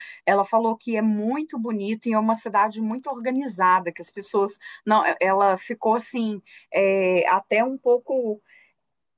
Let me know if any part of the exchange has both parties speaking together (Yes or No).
No